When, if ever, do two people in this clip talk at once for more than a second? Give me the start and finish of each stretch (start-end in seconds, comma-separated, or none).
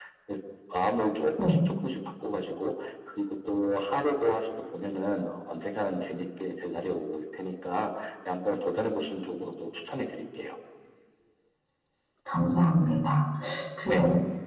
none